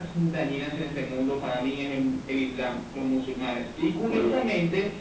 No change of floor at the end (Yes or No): Yes